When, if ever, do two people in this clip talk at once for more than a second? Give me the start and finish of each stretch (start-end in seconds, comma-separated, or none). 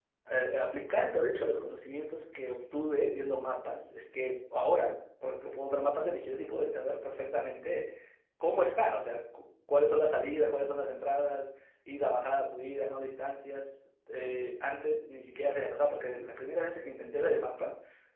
none